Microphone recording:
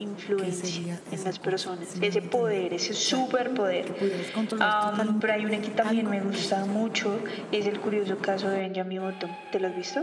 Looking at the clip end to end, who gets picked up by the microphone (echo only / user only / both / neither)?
both